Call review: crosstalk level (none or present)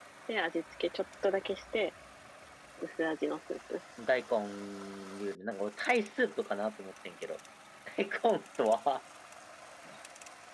none